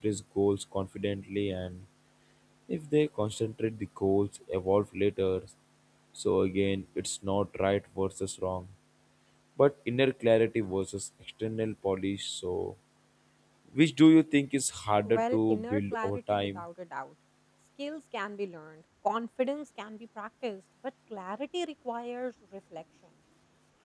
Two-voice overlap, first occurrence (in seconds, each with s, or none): 15.0 s